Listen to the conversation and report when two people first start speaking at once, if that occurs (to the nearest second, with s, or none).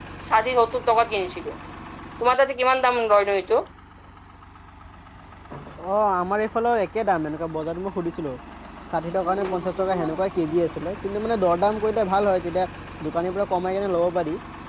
none